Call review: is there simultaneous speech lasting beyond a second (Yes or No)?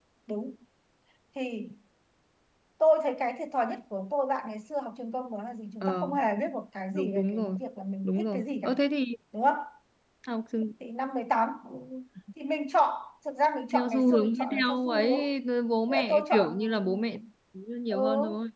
Yes